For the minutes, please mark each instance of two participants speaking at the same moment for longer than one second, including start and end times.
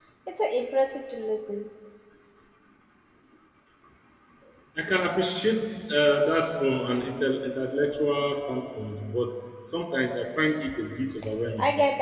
none

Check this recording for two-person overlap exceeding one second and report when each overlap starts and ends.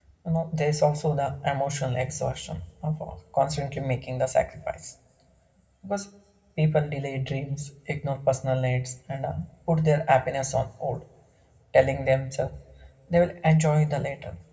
none

